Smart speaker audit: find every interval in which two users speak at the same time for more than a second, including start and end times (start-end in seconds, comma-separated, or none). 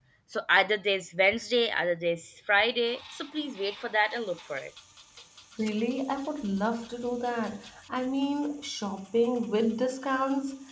none